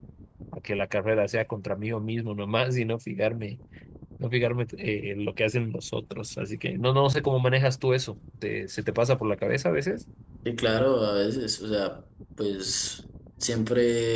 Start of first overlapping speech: none

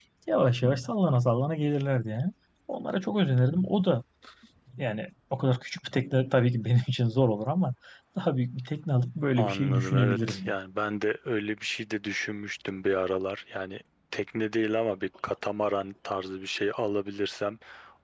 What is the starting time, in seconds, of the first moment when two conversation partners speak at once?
9.4 s

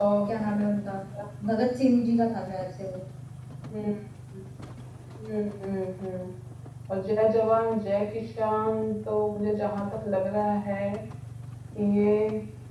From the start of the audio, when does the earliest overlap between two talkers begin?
none

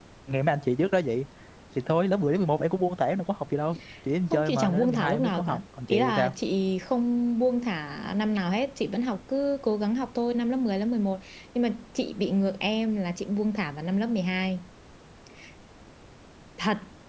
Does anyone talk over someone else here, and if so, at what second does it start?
4.3 s

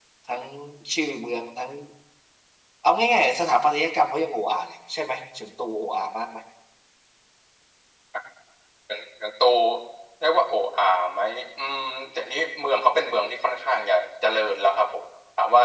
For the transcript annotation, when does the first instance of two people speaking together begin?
none

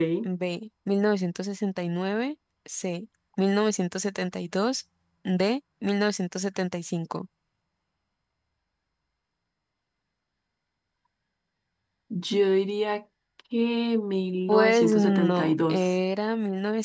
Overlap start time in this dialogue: 14.5 s

